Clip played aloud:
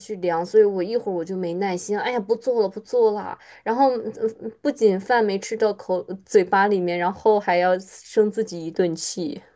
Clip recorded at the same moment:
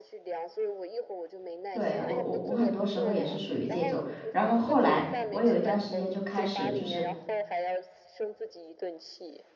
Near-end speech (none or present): present